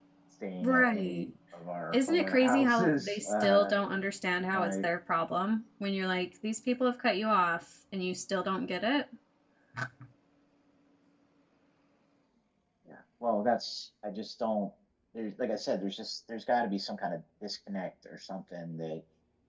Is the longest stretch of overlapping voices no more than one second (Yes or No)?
No